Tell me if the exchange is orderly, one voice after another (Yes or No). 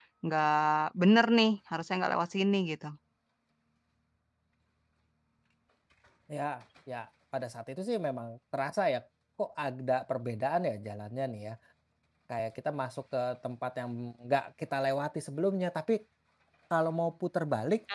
Yes